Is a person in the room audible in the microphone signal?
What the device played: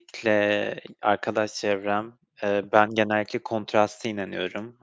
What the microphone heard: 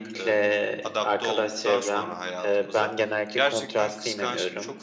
Yes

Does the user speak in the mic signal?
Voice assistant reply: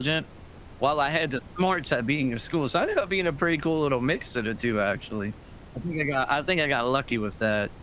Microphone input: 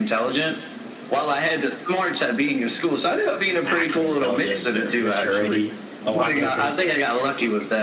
Yes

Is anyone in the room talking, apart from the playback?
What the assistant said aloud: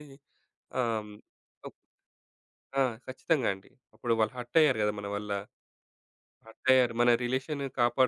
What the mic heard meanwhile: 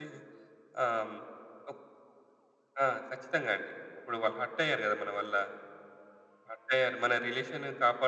No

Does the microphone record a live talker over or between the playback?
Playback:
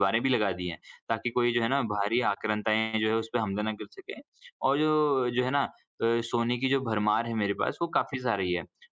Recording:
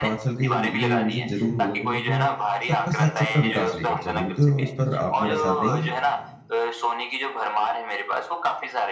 Yes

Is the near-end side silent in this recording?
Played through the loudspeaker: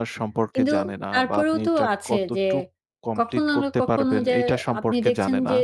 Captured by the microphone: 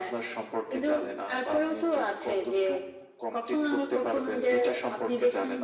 Yes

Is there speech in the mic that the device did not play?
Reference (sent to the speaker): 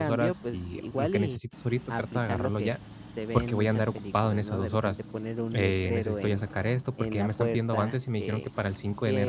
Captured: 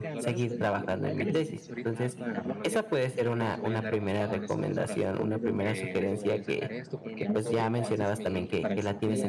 Yes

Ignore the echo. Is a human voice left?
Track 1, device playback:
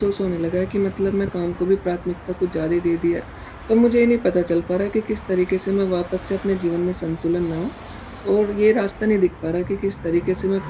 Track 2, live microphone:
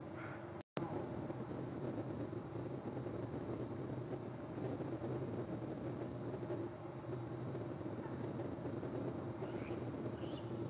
No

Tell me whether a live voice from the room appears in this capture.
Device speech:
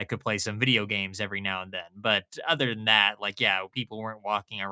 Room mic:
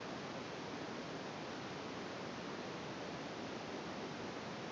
No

